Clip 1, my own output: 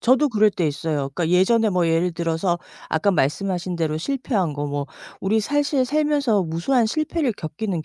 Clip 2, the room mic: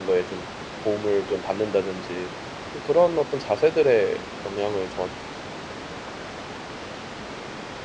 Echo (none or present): none